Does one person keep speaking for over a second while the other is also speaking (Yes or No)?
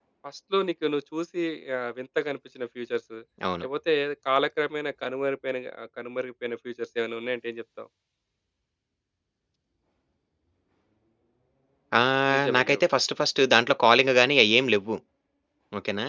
No